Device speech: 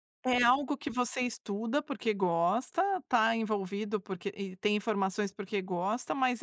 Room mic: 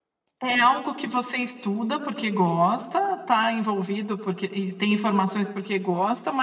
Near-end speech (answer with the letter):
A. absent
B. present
A